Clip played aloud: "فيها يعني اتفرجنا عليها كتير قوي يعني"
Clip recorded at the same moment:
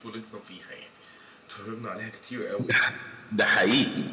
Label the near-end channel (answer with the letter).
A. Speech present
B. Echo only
A